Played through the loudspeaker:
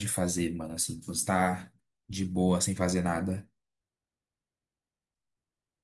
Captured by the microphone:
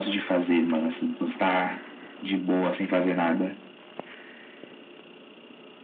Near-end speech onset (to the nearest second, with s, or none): none